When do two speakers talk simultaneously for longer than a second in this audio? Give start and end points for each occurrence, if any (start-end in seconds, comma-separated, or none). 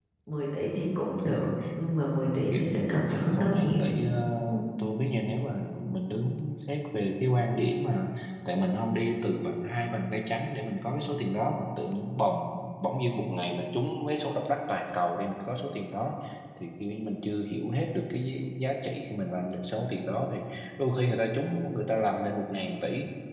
2.5-3.8